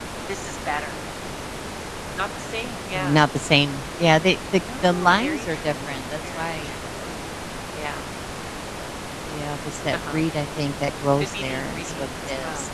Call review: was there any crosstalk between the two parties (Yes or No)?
Yes